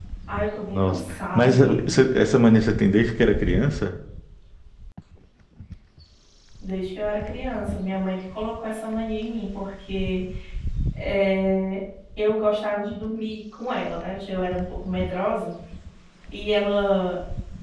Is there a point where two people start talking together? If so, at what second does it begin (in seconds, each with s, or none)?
0.7 s